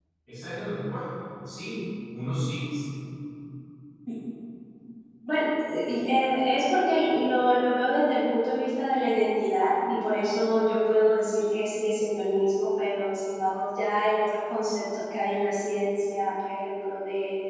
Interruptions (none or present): none